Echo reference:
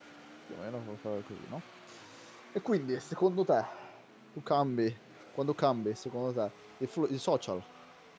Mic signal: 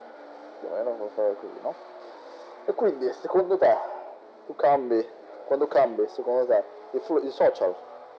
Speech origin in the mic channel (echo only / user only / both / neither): echo only